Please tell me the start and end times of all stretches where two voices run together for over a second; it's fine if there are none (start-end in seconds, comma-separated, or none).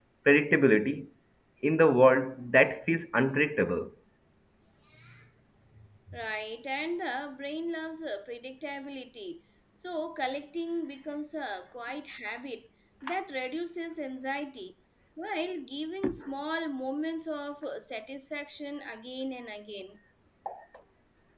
none